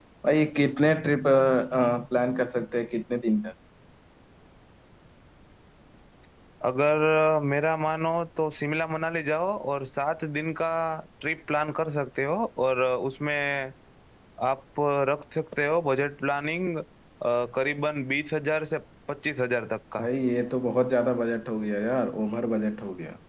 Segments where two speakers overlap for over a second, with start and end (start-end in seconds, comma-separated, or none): none